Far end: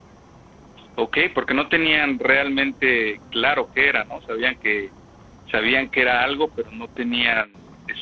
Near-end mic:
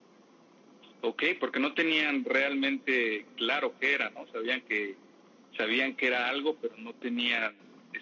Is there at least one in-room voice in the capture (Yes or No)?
No